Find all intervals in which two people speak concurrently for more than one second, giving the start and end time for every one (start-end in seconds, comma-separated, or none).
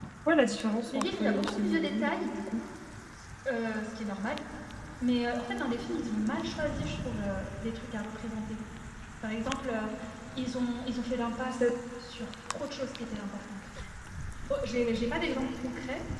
0.9-2.1